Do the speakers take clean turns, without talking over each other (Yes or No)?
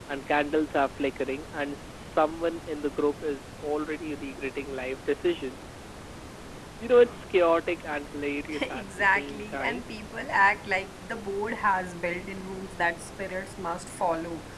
No